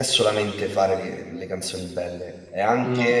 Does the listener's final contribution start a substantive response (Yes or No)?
No